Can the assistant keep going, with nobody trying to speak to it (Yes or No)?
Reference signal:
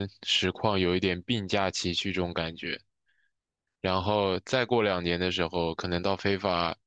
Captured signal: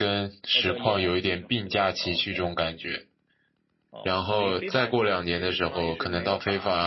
No